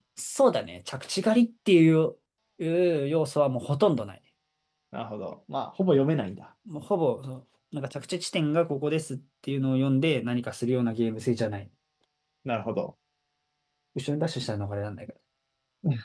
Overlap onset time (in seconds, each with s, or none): none